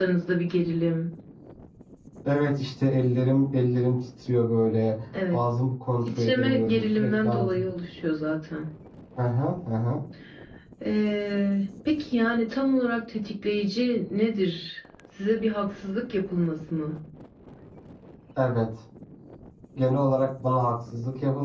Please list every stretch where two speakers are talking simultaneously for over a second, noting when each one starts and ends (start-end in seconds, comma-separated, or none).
6.2-7.7